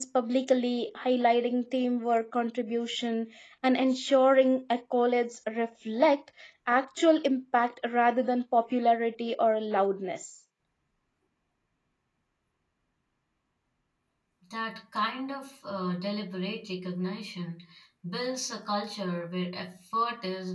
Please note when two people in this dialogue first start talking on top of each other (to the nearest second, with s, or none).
none